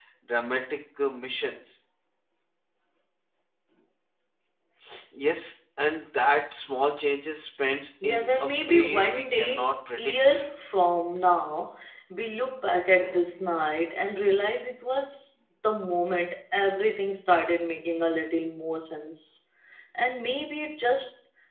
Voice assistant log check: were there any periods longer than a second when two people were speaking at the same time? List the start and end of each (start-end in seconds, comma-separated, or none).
8.0-10.4